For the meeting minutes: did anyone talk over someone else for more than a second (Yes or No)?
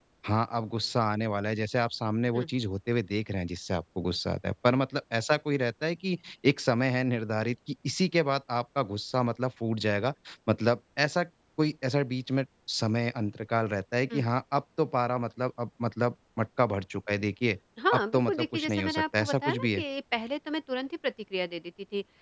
Yes